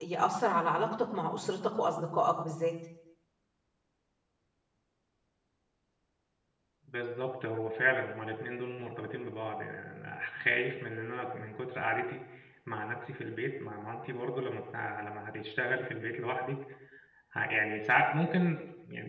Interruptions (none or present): none